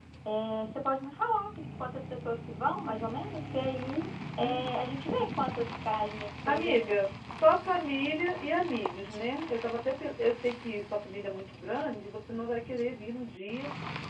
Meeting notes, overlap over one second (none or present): none